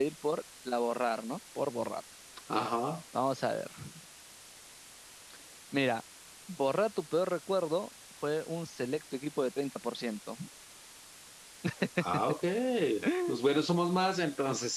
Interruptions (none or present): none